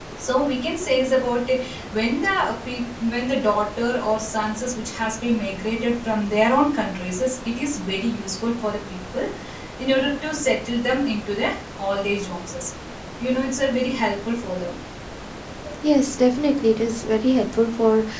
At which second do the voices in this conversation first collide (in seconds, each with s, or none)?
none